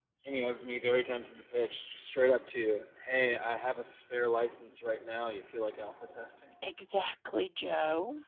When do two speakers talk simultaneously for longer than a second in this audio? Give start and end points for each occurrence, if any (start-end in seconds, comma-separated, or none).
none